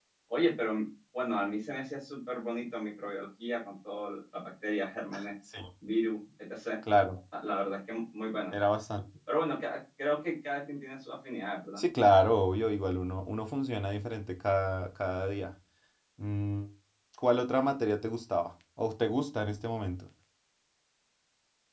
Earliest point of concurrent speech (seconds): none

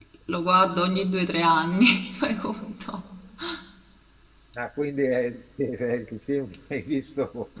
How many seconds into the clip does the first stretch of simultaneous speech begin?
none

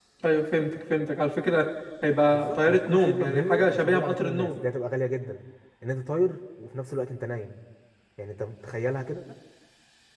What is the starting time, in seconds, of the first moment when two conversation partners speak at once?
2.3 s

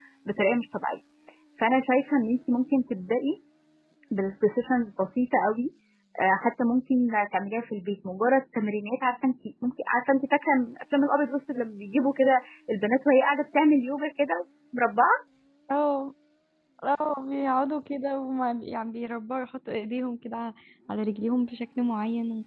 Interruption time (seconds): none

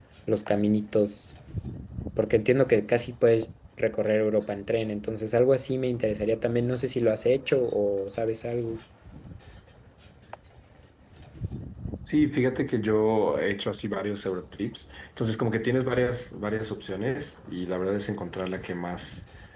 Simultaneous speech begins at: none

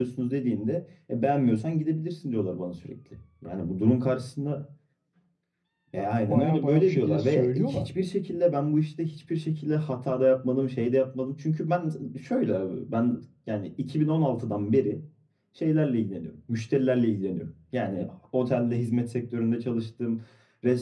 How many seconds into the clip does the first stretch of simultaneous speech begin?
6.3 s

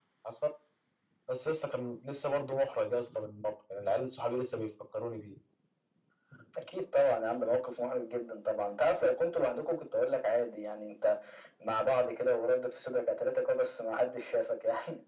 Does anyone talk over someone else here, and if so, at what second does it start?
none

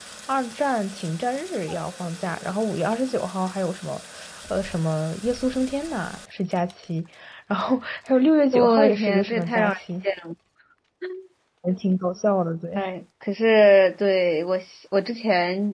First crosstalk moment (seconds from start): 8.5 s

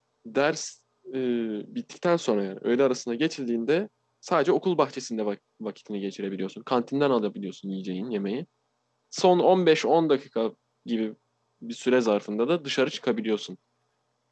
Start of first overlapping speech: none

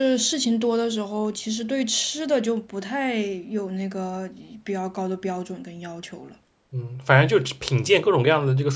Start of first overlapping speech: none

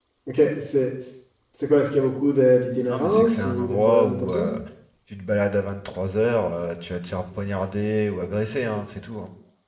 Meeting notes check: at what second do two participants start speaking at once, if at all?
2.8 s

